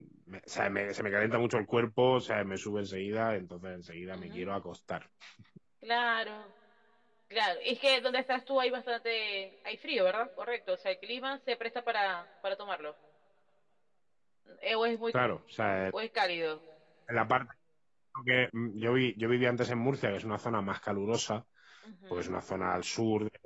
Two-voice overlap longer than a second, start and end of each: none

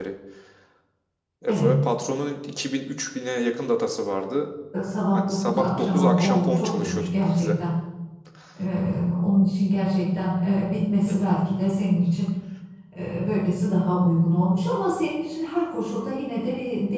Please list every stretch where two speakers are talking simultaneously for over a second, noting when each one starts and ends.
5.1-7.5

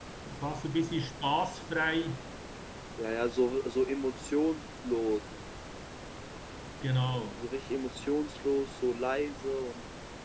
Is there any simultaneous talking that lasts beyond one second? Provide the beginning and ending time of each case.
none

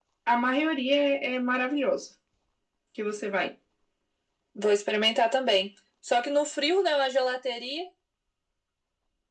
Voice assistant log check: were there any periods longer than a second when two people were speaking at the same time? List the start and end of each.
none

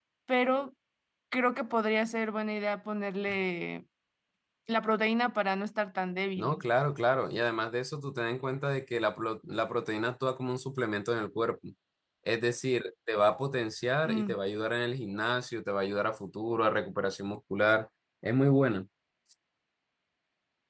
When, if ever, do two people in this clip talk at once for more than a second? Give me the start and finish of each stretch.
none

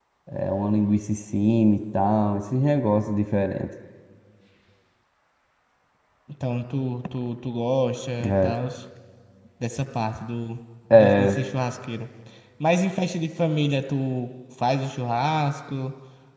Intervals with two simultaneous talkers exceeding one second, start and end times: none

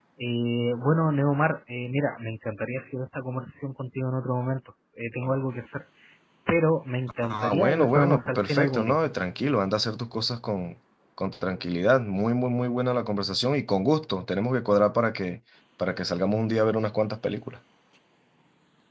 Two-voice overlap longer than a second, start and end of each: 7.2-9.0

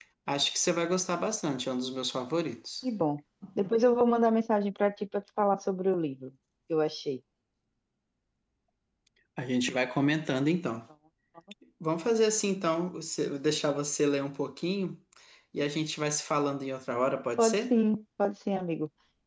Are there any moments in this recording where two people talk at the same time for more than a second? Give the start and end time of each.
none

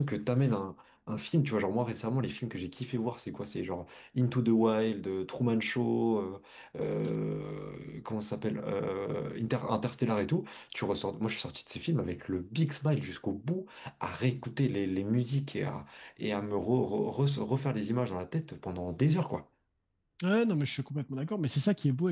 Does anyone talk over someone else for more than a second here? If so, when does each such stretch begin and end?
none

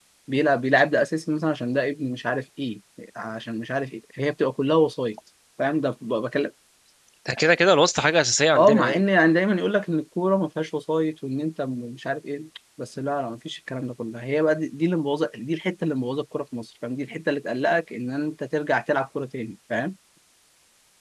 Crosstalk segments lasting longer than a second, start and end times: none

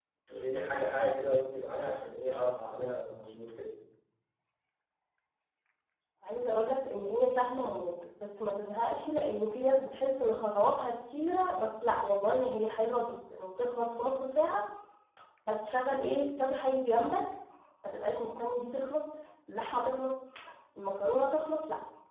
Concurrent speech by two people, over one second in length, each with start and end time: none

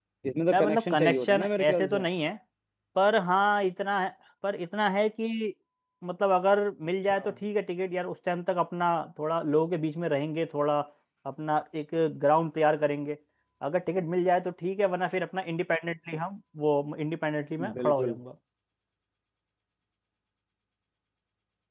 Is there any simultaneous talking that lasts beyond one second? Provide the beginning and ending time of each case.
0.5-2.0

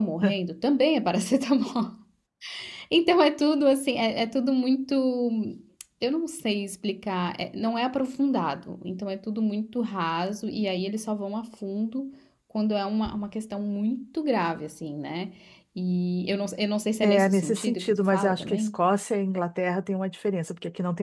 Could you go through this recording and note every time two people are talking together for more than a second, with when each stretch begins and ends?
17.0-18.8

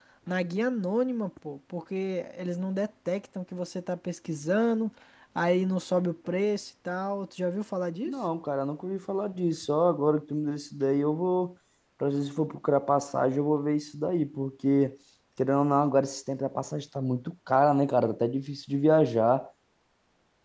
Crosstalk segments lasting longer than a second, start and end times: none

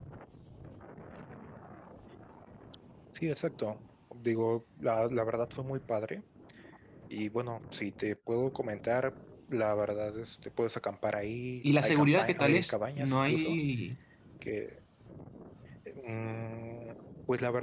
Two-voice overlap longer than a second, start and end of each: 11.8-13.6

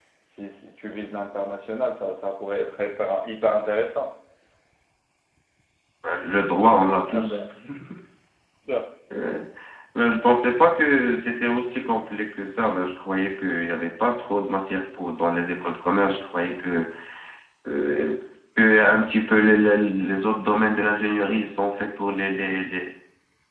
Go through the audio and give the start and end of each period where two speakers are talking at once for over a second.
none

